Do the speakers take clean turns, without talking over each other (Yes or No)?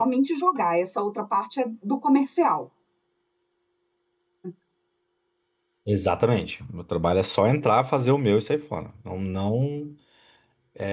Yes